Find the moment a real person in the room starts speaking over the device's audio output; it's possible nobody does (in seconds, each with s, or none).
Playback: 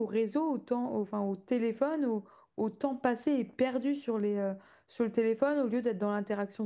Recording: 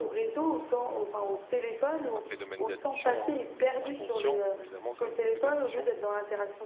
2.1 s